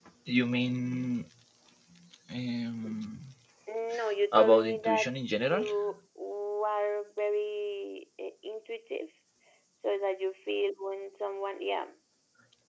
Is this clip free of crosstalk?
No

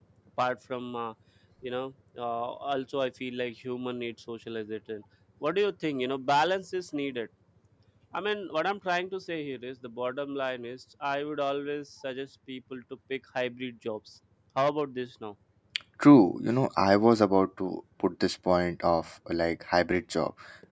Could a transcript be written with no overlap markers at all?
Yes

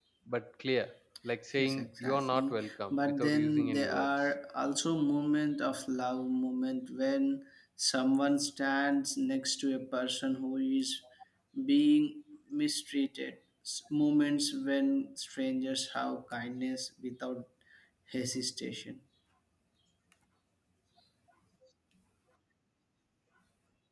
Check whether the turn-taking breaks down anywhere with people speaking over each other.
Yes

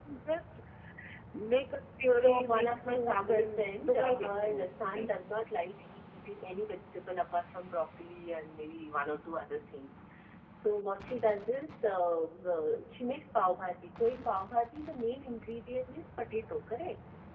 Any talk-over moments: Yes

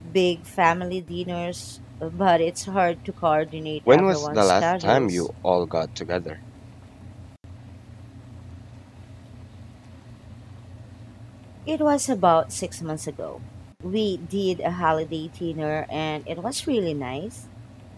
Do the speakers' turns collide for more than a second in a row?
Yes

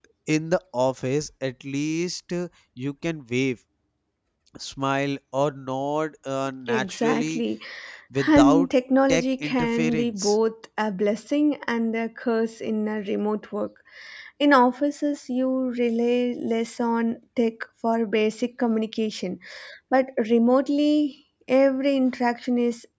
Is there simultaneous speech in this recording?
Yes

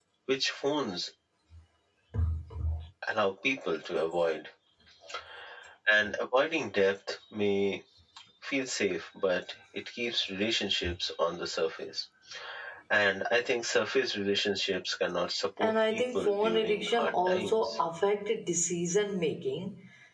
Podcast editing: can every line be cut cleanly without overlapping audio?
No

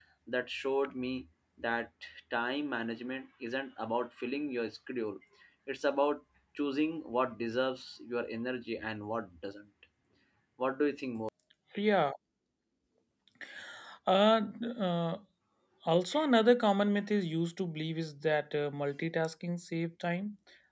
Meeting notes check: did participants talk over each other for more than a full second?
No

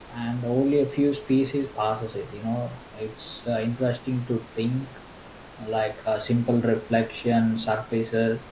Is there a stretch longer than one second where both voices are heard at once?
No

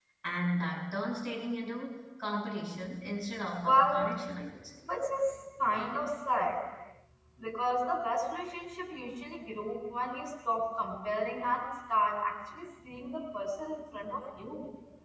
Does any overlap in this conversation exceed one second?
No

